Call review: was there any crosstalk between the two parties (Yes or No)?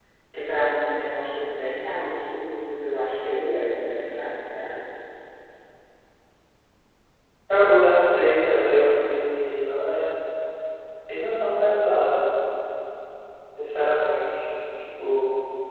No